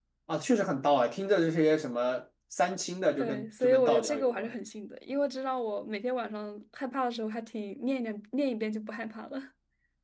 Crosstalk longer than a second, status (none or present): present